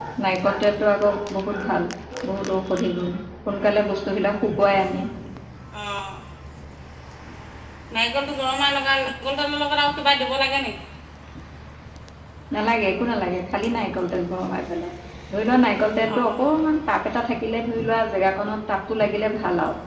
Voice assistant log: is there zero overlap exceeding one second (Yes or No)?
Yes